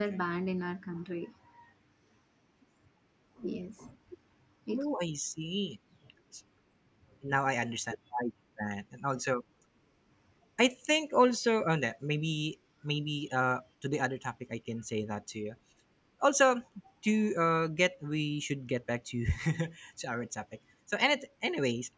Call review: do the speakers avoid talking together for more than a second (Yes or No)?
Yes